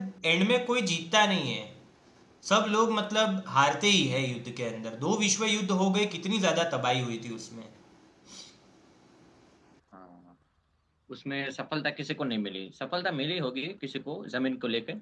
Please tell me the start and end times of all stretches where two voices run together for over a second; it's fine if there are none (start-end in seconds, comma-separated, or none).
none